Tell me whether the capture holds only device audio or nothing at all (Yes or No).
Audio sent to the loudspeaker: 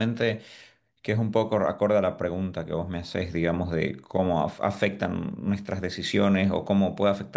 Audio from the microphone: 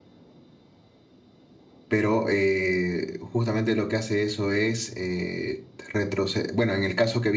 No